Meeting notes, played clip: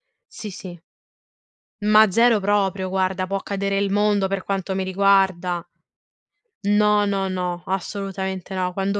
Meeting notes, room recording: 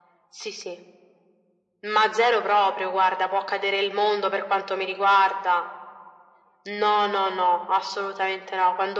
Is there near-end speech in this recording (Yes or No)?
No